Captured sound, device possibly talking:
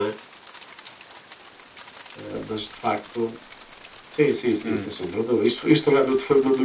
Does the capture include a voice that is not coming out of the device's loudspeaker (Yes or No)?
Yes